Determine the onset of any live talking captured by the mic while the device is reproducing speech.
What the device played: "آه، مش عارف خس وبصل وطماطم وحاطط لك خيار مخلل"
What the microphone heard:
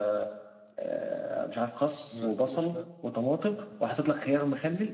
2.1 s

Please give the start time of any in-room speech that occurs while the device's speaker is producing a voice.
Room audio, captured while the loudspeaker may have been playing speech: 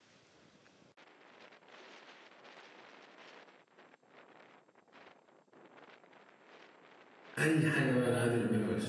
7.4 s

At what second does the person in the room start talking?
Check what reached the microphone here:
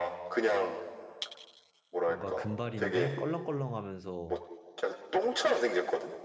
2.0 s

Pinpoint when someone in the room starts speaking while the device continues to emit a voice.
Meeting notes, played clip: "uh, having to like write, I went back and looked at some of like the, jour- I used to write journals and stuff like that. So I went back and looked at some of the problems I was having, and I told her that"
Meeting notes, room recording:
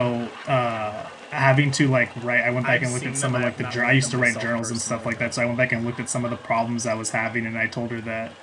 2.6 s

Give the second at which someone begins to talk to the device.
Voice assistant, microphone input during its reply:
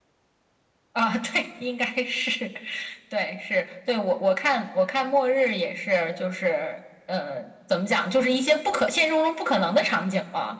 none

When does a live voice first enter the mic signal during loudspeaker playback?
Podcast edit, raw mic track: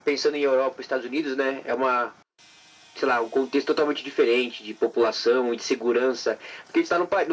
none

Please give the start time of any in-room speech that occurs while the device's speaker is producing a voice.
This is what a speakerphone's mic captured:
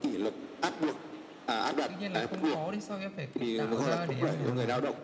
1.8 s

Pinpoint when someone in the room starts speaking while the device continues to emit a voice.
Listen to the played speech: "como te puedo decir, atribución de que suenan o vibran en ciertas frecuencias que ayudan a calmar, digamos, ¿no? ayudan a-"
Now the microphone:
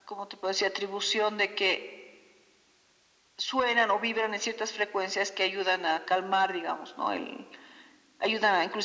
none

